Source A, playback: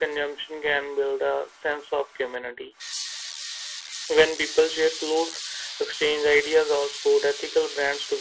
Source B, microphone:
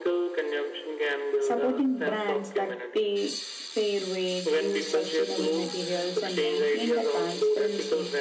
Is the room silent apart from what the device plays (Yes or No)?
No